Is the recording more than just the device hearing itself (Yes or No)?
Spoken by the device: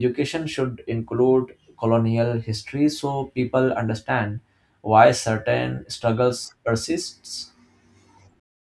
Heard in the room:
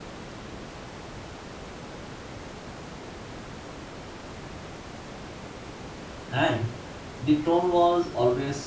Yes